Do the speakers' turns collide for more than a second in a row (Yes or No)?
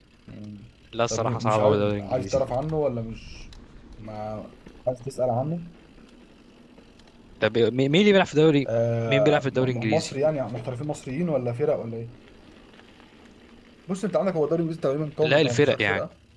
Yes